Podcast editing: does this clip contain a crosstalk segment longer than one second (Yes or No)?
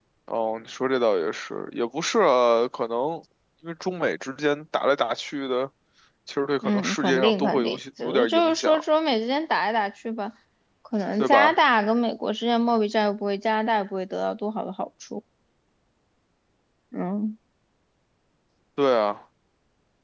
Yes